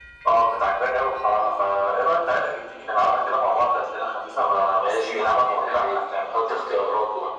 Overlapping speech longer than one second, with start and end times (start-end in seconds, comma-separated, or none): 4.7-6.2